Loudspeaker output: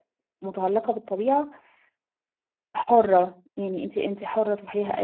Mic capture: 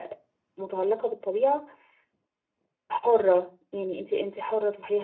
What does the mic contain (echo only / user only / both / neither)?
echo only